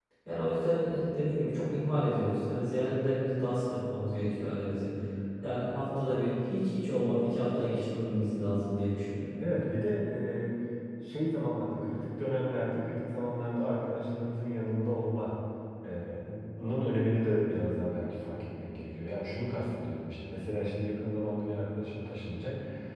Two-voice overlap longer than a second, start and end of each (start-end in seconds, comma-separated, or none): none